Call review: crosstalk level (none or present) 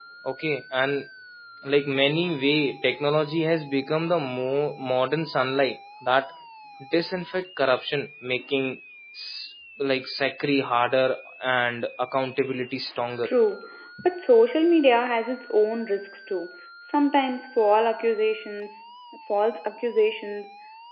none